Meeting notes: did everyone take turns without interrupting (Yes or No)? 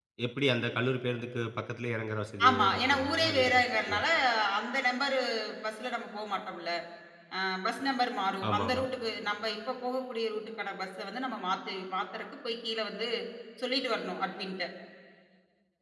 No